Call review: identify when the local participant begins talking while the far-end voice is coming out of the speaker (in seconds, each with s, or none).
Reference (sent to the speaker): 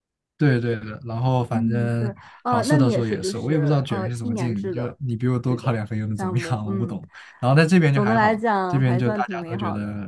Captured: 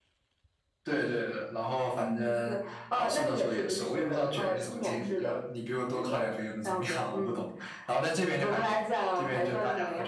none